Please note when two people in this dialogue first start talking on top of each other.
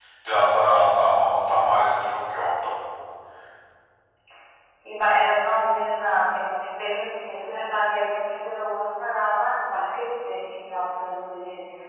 none

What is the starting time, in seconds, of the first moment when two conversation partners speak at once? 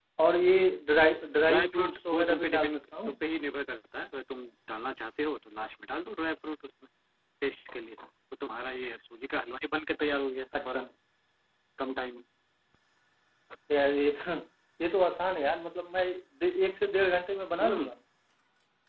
1 s

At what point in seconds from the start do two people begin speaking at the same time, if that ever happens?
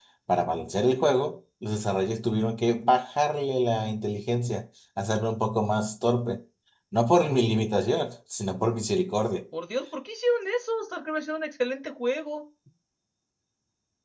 none

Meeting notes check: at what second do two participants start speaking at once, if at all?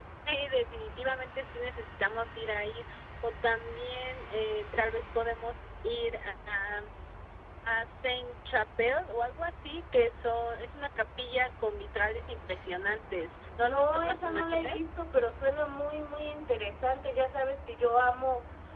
14 s

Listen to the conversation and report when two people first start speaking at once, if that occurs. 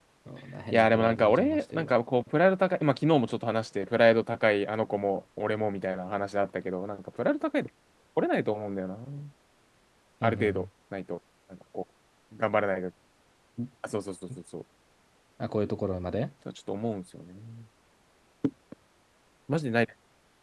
1 s

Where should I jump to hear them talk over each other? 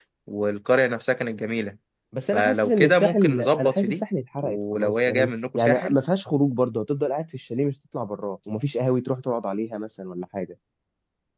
2 s

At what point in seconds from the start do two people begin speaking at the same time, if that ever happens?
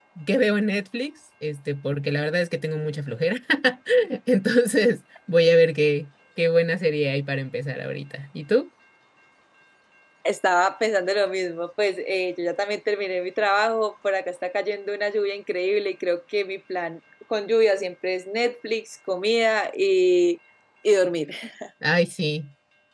none

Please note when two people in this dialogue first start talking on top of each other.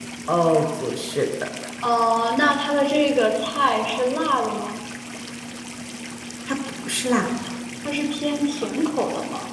none

